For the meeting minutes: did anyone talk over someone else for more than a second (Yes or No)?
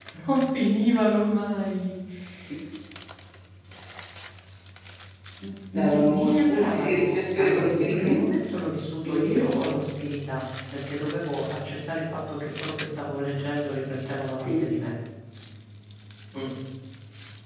Yes